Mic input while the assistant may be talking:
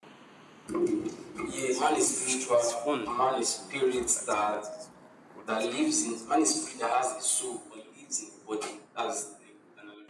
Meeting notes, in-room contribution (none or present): present